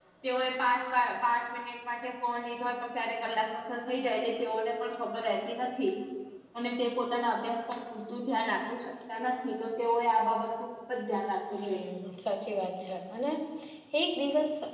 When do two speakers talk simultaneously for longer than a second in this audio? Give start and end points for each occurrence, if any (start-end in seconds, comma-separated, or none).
none